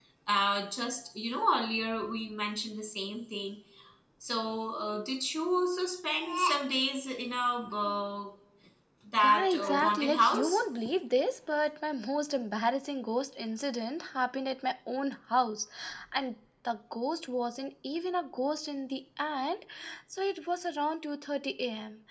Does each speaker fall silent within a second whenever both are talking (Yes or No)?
No